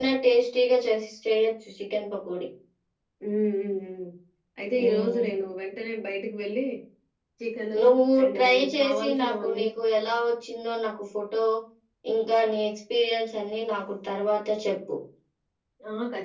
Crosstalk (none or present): present